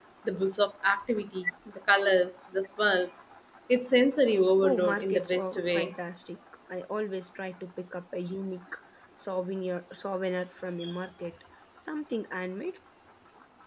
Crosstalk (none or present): present